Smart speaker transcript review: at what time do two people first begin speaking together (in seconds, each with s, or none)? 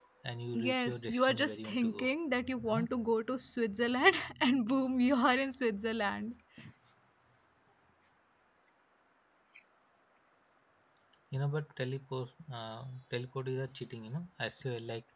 0.5 s